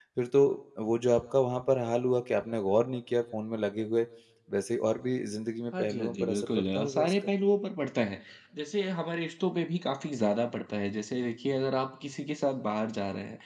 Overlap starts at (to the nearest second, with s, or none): 6 s